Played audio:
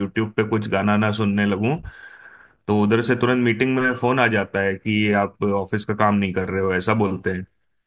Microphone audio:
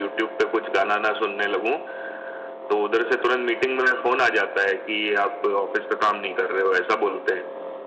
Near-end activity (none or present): none